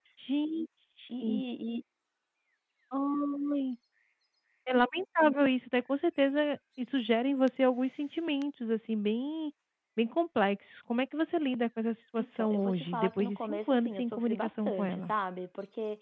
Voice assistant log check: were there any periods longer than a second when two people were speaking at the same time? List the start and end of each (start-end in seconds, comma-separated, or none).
12.2-15.1